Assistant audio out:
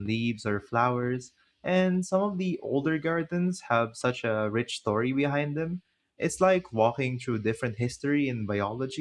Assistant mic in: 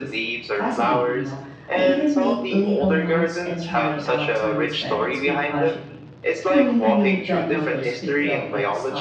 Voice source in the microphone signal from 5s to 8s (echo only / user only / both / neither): both